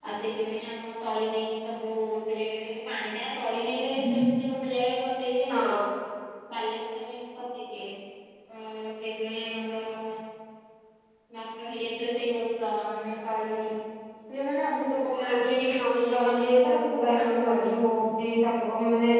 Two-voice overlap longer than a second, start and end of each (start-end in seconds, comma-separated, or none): 15.1-17.7